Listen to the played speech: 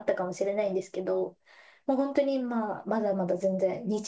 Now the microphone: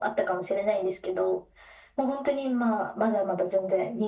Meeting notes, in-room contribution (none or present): none